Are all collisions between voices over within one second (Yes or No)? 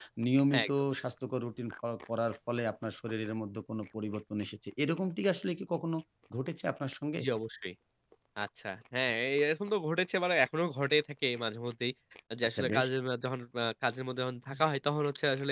Yes